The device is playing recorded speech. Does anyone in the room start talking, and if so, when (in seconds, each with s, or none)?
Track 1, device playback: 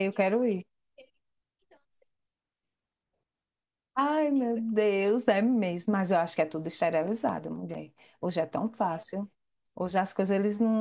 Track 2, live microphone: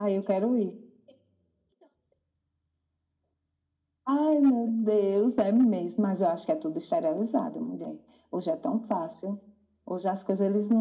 none